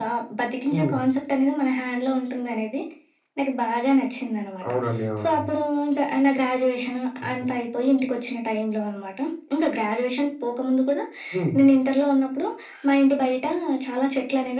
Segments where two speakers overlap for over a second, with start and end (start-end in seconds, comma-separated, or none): none